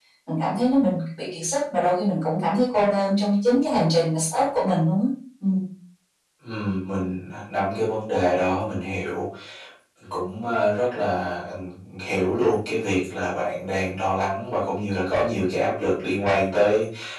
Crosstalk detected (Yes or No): No